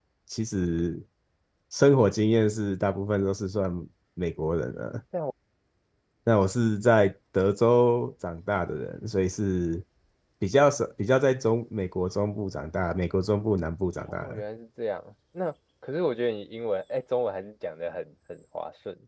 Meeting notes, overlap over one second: none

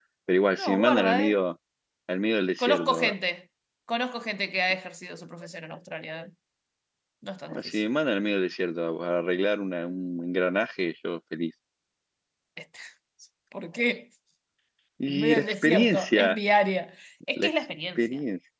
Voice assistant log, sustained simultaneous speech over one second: present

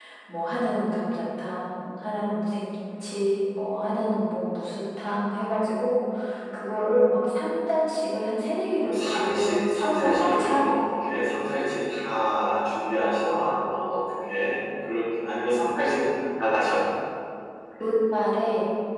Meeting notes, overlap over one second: present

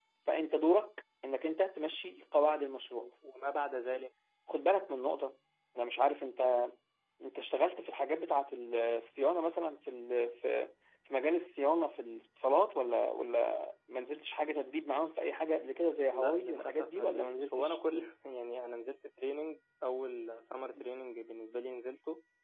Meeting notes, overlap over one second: present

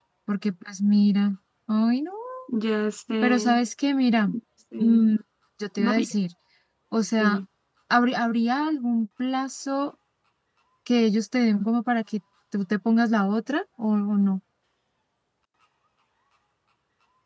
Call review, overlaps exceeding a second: none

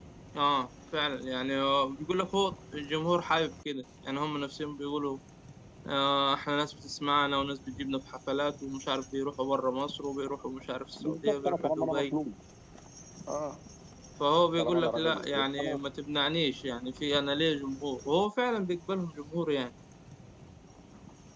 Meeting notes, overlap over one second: present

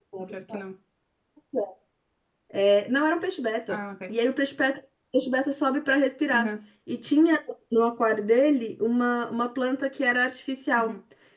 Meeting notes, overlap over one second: none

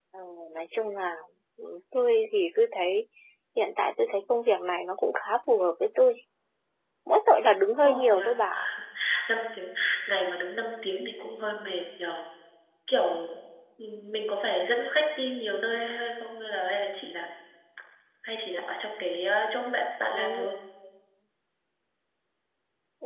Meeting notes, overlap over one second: none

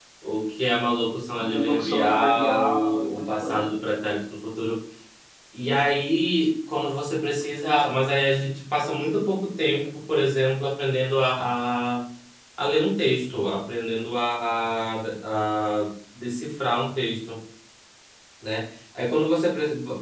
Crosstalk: present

